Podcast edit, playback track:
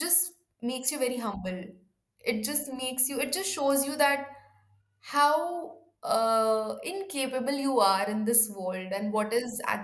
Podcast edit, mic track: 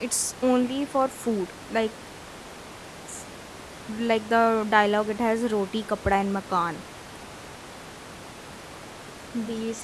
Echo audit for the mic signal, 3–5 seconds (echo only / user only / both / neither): user only